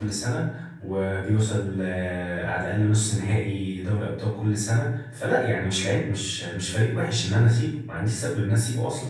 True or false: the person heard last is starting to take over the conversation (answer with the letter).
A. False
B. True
B